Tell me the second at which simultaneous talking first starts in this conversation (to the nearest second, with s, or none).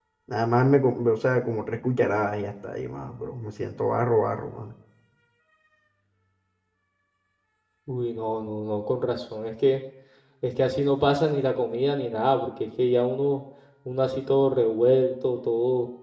none